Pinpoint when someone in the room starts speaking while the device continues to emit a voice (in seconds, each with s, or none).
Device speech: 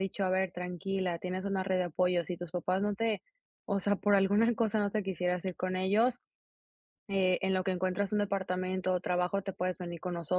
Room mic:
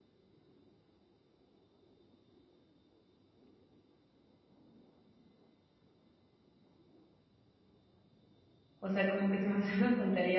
8.8 s